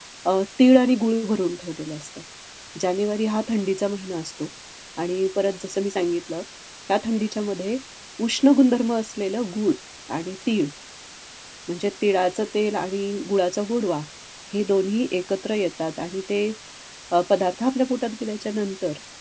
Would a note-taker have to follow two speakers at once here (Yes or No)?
No